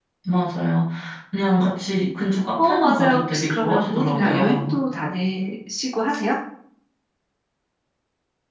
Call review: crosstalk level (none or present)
present